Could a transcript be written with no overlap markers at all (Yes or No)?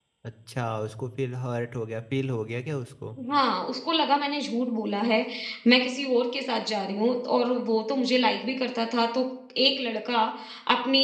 Yes